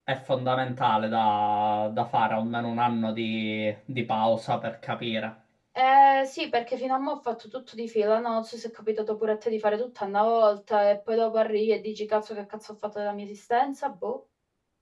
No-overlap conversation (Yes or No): Yes